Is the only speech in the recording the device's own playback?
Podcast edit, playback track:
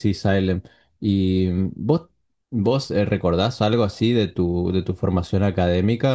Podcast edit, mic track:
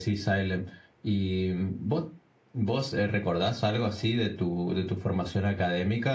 Yes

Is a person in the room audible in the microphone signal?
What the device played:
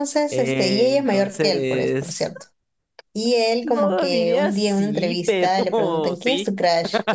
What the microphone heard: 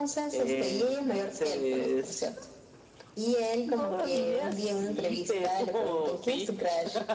No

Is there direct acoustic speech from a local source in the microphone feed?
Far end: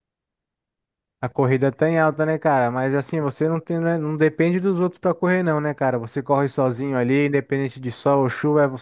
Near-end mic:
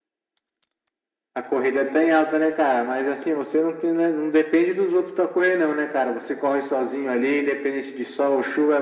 No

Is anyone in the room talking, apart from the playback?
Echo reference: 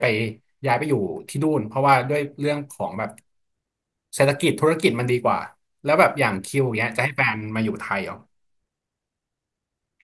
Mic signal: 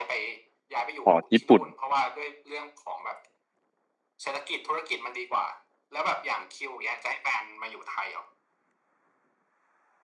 Yes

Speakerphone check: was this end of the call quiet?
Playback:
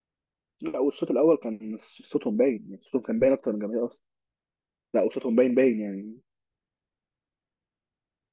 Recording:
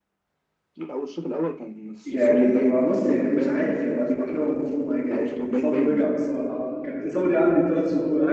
No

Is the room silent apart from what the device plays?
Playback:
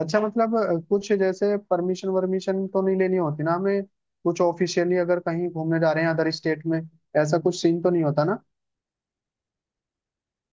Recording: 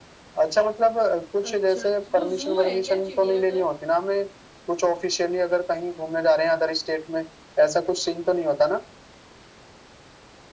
No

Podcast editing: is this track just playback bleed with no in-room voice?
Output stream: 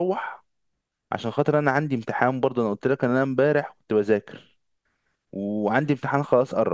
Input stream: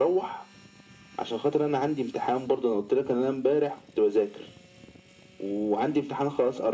Yes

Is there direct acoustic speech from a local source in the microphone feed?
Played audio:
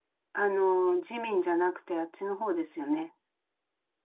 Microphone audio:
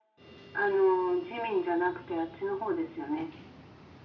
No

